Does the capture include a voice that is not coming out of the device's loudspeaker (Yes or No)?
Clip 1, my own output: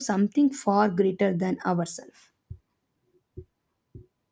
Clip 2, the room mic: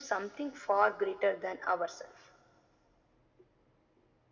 No